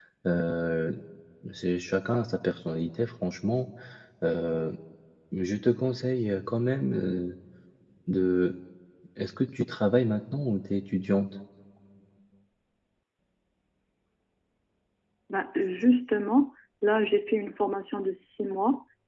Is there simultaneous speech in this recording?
No

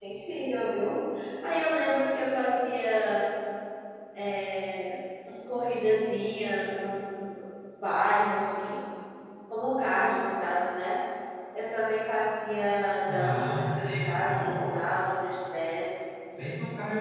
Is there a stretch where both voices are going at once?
Yes, from 13.1 s

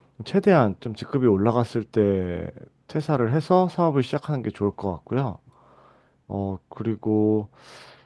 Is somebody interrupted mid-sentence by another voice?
No

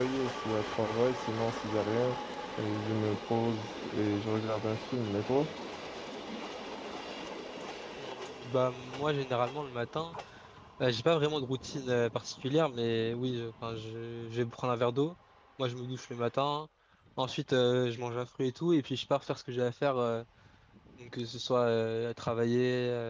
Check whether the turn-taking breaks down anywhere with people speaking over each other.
No

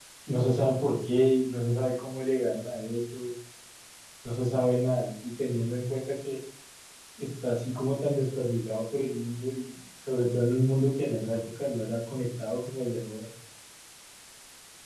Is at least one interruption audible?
No

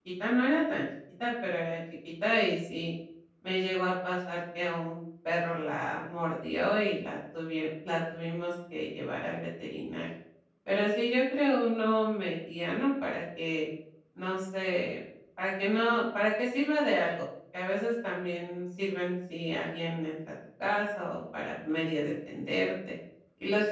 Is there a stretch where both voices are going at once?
No

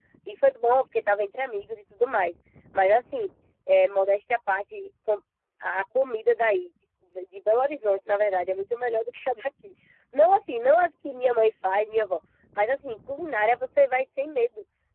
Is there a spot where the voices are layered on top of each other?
No

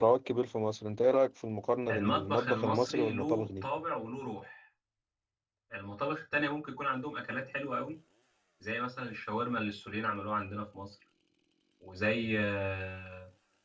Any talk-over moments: Yes, from 1.9 s

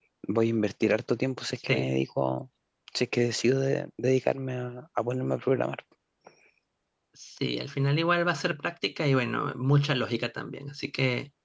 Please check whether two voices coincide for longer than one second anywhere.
No

